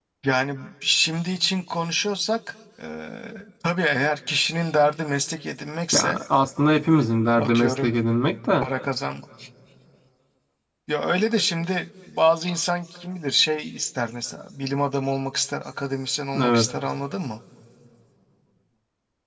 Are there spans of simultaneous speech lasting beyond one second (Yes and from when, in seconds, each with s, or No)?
No